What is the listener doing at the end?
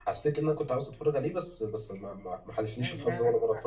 taking over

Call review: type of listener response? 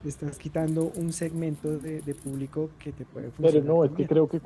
taking over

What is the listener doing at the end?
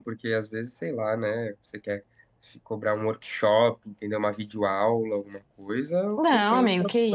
taking over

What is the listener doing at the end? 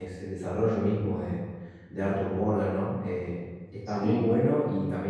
listening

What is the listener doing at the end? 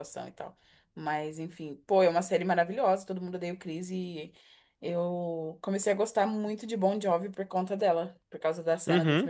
taking over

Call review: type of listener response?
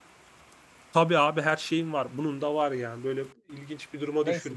taking over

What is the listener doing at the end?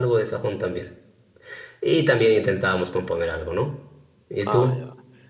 taking over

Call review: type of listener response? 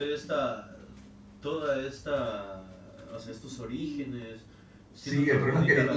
taking over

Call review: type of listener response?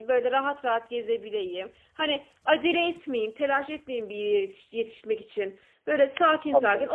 listening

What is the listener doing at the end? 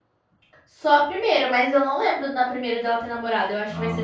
taking over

